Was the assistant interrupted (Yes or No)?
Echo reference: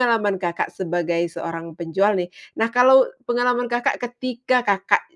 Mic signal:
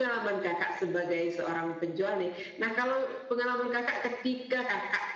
No